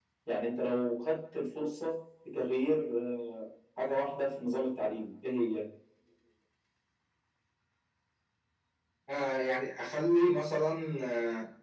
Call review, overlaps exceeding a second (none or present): none